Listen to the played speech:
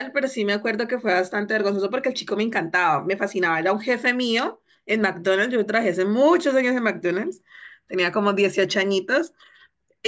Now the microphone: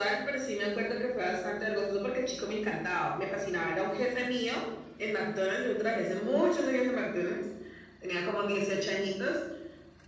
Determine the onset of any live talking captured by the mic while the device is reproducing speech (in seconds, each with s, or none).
none